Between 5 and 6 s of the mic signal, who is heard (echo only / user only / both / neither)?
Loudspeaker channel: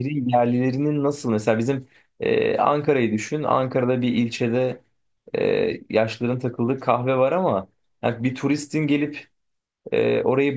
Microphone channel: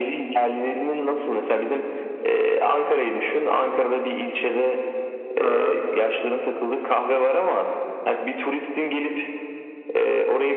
both